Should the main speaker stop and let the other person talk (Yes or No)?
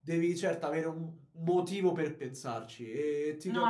No